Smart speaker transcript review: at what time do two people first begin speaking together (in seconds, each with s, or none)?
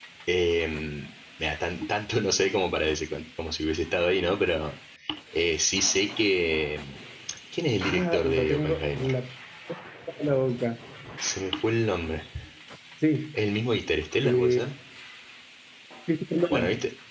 7.8 s